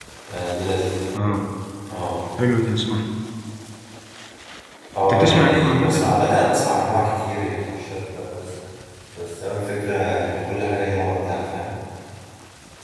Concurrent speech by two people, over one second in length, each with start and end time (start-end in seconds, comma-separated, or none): 5.0-6.4